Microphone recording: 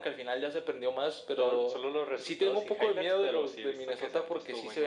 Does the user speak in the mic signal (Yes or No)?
No